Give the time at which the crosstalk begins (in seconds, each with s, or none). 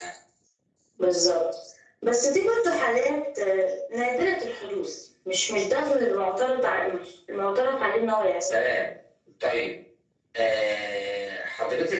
none